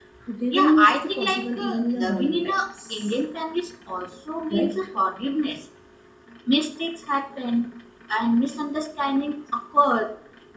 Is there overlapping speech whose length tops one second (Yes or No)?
Yes